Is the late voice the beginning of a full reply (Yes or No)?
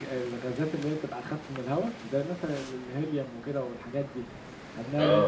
No